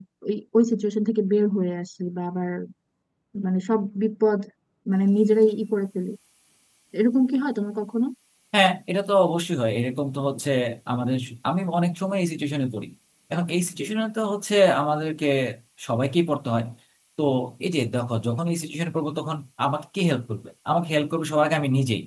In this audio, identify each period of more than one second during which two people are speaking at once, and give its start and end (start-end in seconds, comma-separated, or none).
none